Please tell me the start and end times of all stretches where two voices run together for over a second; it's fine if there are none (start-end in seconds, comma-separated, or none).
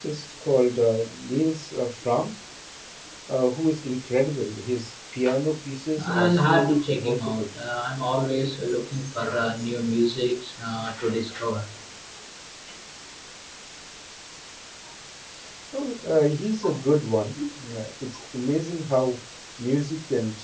6.0-7.5